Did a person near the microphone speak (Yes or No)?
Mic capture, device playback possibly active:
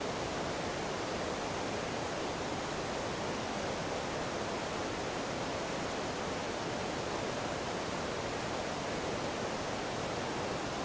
No